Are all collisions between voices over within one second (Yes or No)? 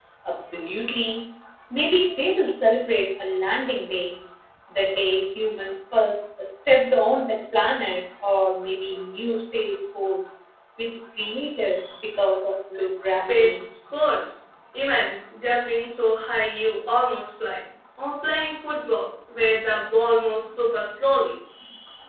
Yes